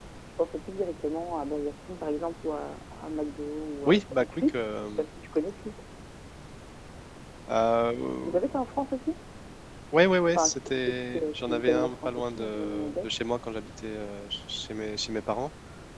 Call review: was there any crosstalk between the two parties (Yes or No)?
Yes